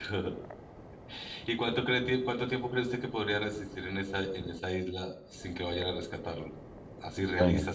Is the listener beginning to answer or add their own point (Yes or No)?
No